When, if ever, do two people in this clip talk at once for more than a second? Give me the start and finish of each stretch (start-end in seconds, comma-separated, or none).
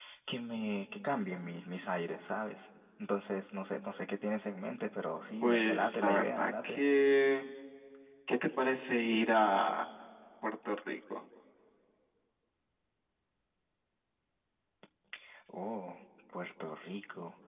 5.4-6.8